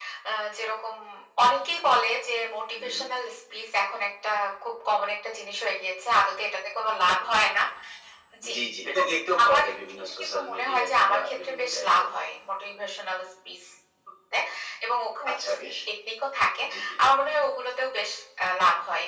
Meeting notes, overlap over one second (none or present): present